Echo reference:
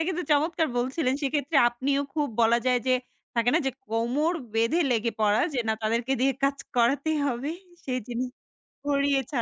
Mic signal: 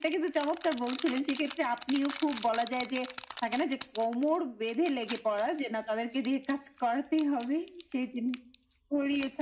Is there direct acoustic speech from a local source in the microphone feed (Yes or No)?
No